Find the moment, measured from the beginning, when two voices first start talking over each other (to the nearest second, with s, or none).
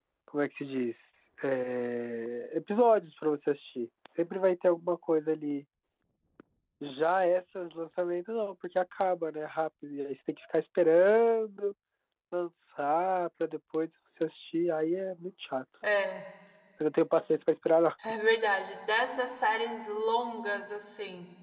none